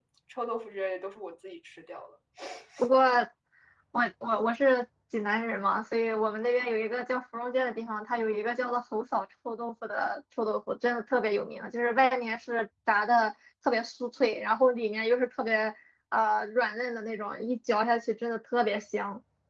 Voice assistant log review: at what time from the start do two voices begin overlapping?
none

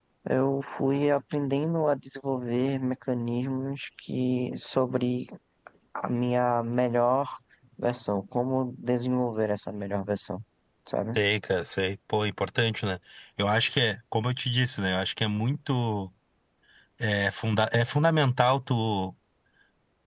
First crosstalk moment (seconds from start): none

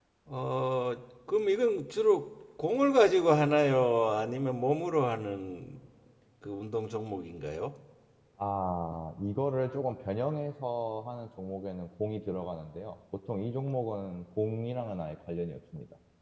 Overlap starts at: none

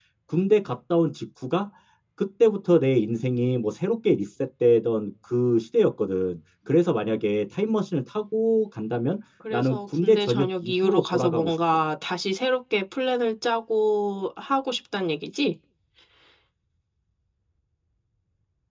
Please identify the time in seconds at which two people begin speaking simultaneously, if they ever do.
9.4 s

